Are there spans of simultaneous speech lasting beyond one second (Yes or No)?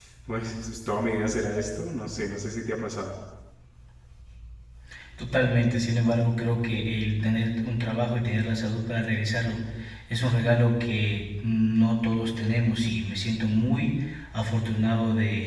No